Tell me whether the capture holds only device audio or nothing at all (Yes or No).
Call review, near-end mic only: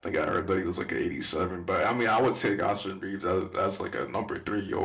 No